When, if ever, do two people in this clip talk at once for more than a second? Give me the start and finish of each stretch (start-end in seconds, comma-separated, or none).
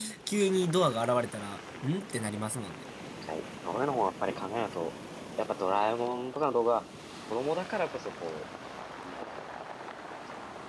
none